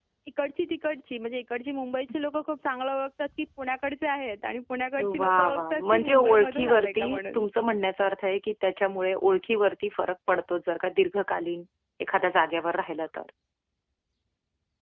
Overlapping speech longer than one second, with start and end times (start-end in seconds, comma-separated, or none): 5.2-7.4